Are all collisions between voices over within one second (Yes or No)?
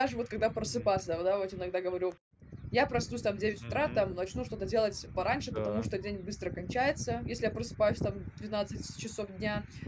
Yes